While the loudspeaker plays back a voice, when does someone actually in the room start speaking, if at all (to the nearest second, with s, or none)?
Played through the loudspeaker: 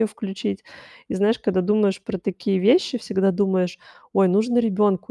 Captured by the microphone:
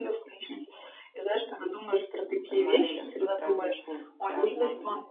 2 s